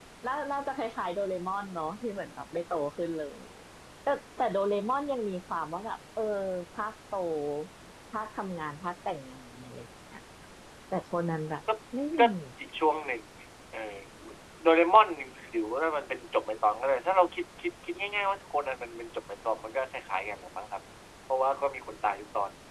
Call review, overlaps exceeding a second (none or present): none